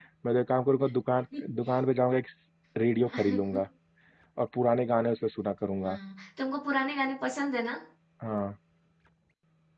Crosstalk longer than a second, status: none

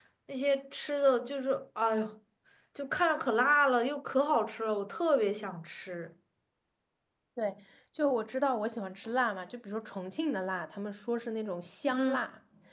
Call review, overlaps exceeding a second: none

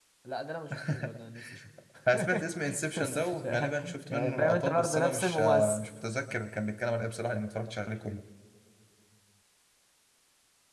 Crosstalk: present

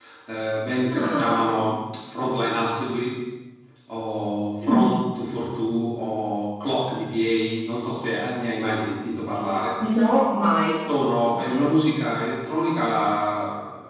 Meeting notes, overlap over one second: none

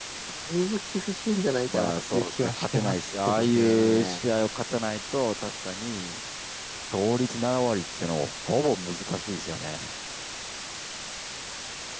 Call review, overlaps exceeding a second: present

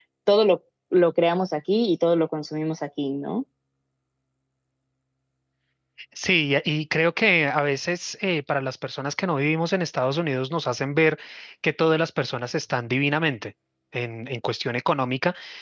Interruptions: none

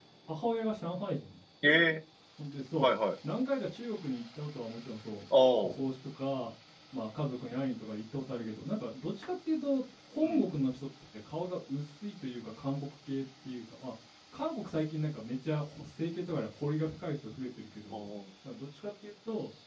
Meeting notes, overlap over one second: none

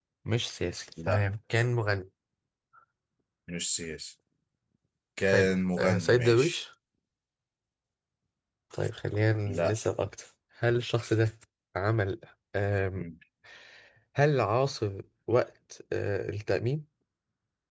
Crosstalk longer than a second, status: present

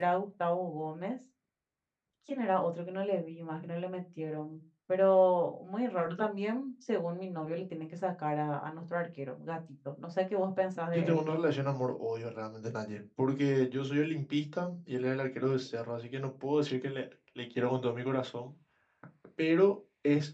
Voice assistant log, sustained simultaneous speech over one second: none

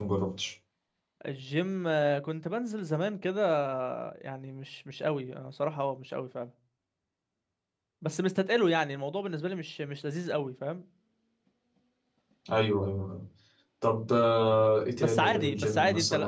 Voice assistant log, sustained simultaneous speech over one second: present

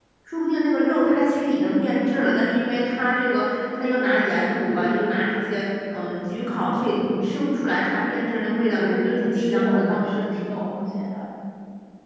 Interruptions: present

